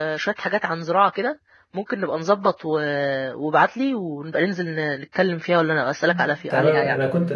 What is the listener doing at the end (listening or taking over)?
taking over